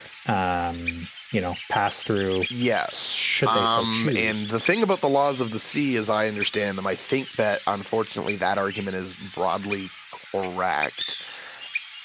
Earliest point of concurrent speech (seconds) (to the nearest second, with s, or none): 3 s